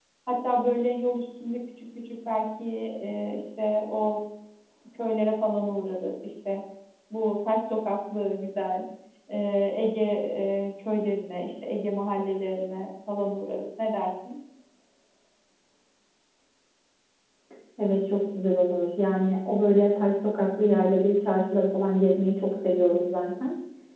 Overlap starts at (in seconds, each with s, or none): none